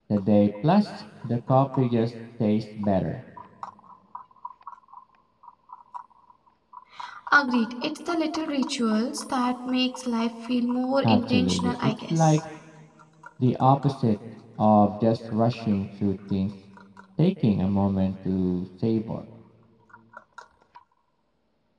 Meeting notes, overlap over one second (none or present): present